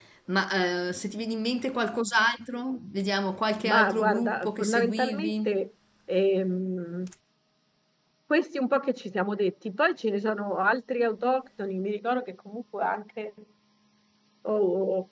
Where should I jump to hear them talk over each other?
3.6 s

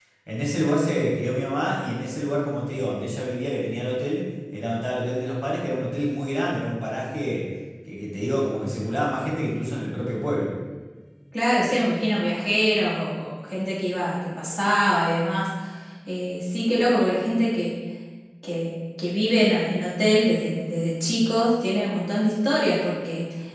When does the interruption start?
none

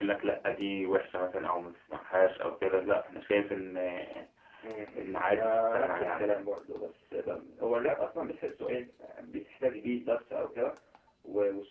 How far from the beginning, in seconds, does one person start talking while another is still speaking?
5.0 s

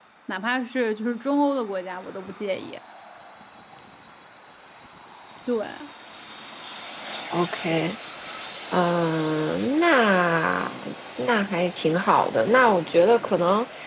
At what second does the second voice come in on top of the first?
none

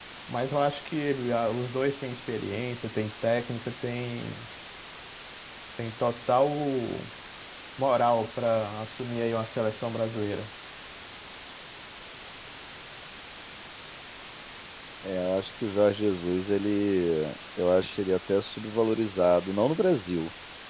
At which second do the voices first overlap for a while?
none

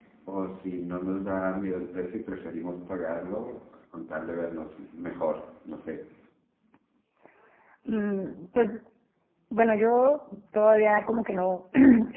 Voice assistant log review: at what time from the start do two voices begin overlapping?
none

